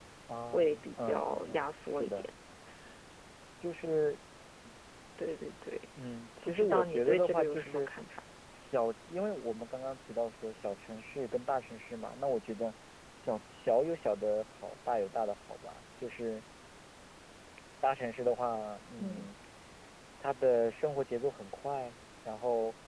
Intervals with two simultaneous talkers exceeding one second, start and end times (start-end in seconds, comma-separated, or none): 0.5-2.3, 6.4-7.9